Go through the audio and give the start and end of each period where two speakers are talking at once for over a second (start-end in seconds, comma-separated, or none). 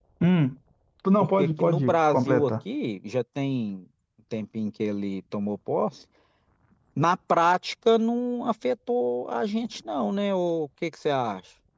1.2-2.5